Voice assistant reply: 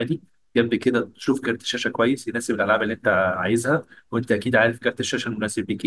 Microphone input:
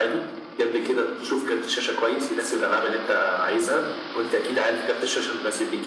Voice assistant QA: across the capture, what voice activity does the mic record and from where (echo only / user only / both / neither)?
echo only